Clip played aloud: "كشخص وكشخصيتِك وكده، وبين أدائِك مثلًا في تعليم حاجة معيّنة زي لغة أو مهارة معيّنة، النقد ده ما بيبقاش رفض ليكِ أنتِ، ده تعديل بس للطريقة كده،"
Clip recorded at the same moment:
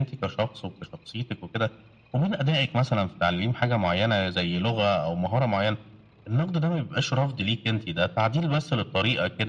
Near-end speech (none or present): none